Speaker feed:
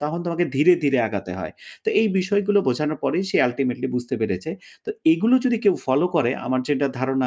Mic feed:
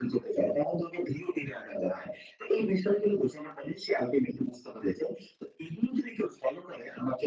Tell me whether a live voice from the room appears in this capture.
No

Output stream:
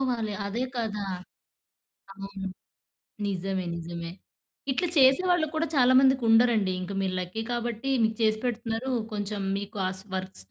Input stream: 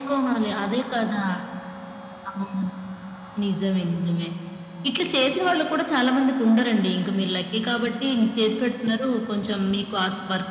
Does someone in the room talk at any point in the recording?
No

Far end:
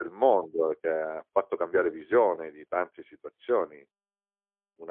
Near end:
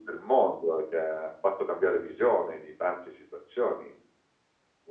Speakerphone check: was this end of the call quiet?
Yes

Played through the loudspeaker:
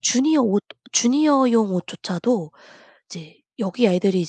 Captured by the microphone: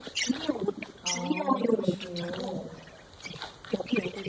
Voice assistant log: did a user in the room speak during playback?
Yes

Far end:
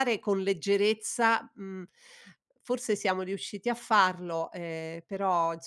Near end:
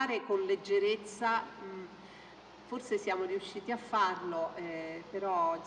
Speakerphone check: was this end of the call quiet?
Yes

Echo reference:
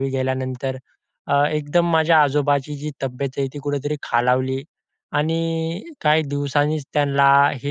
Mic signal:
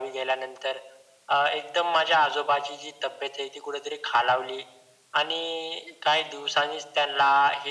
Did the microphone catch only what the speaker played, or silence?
Yes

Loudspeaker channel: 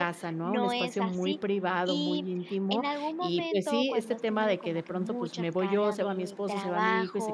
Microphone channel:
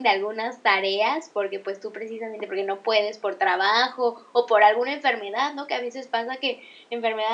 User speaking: Yes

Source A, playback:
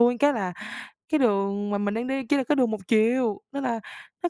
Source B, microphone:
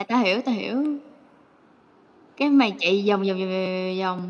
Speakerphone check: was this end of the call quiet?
No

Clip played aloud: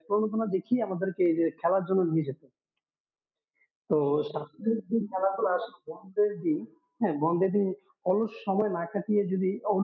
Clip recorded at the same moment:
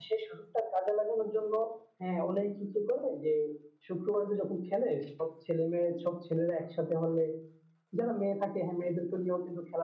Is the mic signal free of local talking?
No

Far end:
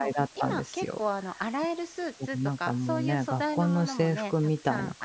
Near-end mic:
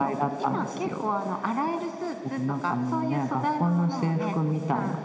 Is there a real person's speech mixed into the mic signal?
No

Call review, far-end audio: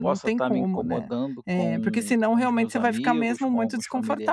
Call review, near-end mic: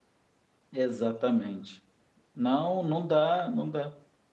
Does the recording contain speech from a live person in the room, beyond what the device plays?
Yes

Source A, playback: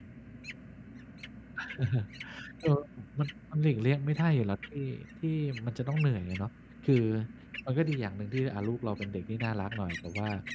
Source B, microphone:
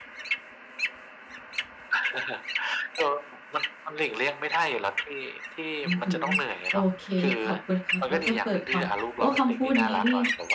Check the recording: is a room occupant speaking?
Yes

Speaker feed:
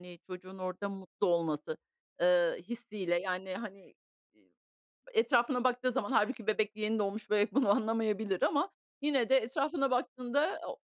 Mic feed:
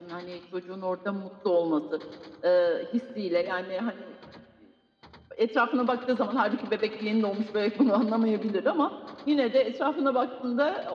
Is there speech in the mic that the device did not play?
No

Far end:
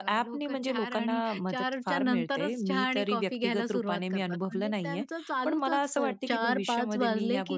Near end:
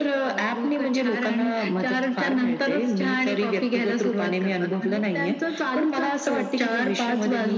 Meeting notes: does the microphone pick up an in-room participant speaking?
No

